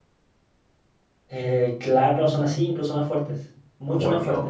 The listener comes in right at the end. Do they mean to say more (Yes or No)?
Yes